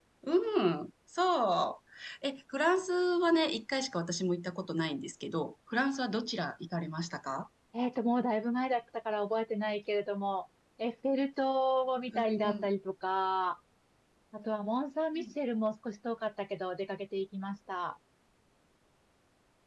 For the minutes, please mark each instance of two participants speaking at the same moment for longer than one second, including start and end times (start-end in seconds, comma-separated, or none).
none